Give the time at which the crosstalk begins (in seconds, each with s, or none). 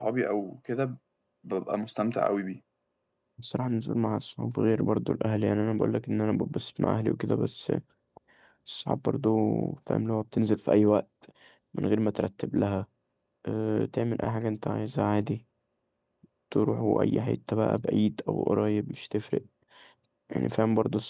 none